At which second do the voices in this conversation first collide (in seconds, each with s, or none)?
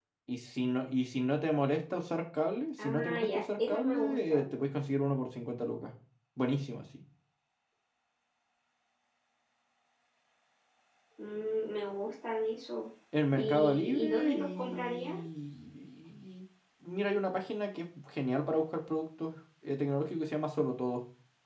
2.8 s